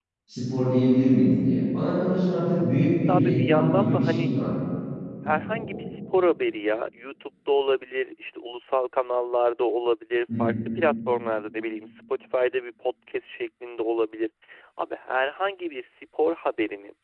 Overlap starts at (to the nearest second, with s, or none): 3 s